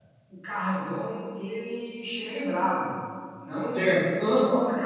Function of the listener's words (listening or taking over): taking over